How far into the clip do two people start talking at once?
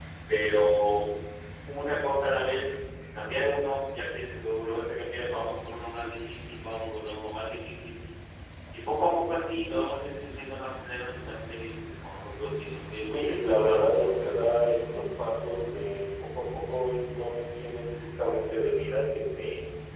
13 s

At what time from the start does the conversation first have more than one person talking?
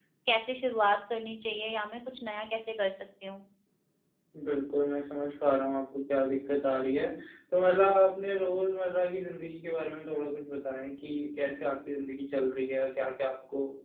none

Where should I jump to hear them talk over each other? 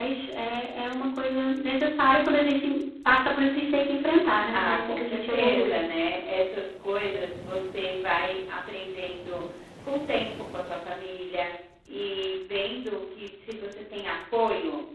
5 s

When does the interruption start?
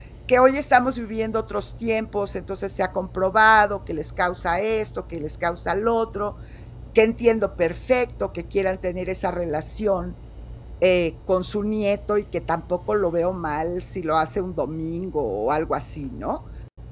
none

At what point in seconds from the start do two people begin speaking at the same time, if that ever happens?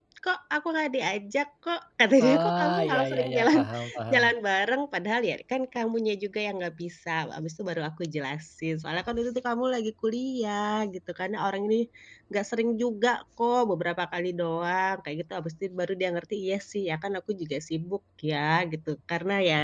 2 s

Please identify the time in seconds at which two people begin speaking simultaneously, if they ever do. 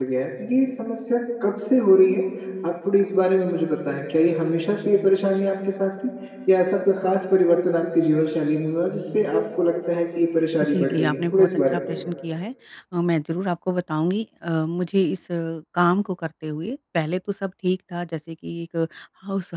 11 s

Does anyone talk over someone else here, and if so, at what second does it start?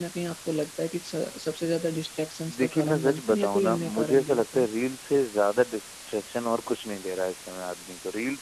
2 s

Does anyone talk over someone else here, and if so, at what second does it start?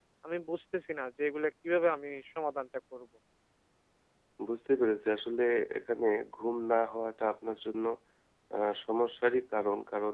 none

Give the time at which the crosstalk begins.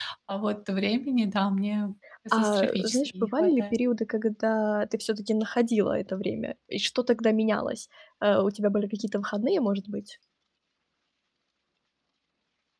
2 s

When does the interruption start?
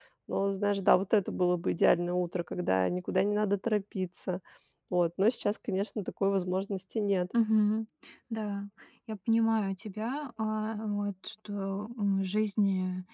none

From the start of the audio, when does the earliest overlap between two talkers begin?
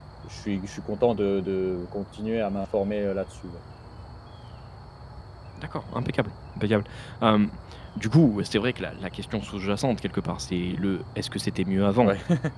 none

